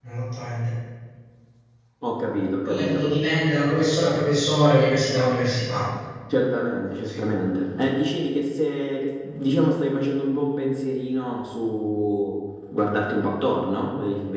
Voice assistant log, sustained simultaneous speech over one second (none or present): none